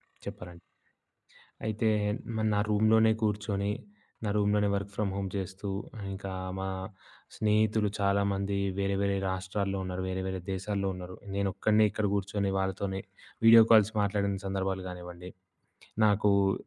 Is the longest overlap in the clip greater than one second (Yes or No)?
No